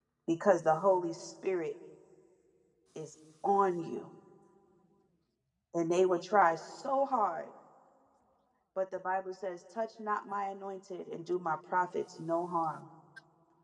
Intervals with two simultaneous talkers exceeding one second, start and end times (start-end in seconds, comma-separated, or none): none